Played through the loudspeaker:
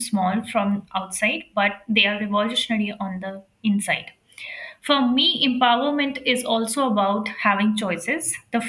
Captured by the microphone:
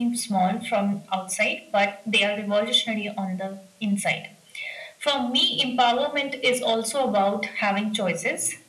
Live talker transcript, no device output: none

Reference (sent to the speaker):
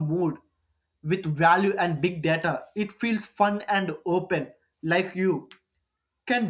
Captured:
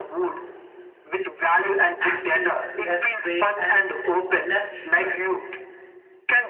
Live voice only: angry, less weight, and less stress.

